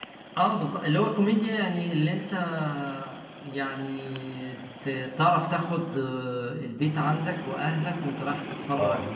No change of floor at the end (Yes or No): Yes